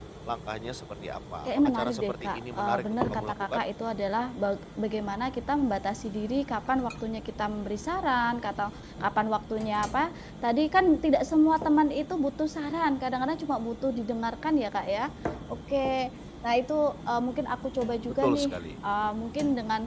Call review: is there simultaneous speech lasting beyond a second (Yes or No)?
Yes